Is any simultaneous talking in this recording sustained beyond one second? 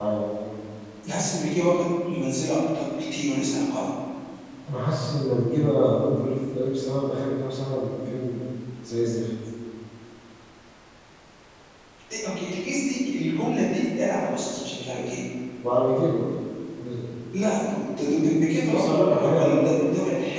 Yes, from 18.7 s

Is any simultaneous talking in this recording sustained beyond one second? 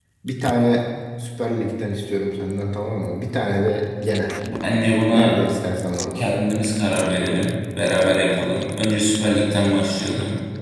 No

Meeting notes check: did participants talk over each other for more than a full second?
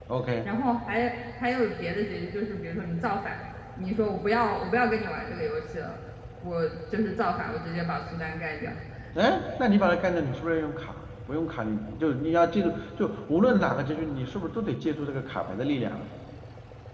No

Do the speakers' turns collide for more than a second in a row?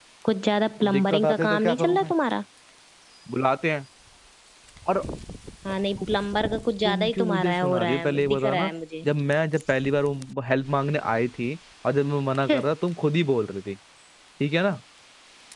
Yes, from 0.8 s

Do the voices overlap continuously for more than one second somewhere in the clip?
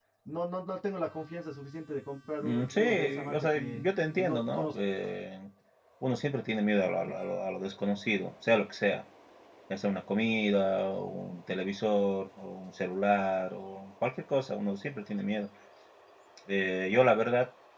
Yes, from 2.4 s

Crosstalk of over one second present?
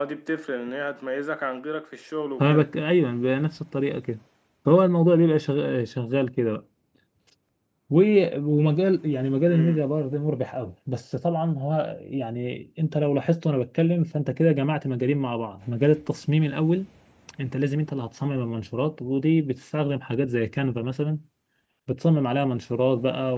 No

